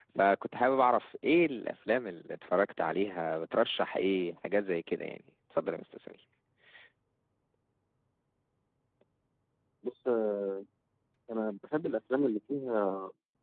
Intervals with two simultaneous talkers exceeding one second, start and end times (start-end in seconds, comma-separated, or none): none